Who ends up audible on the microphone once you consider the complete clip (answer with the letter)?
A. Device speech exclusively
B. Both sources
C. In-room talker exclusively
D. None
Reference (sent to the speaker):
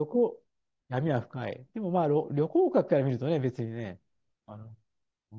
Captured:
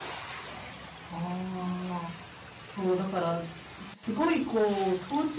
C